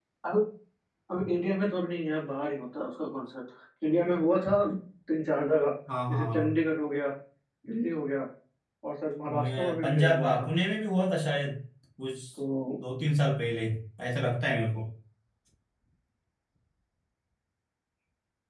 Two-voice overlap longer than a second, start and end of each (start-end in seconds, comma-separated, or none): 9.3-10.5